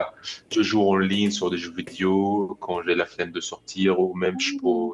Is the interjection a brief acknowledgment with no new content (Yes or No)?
Yes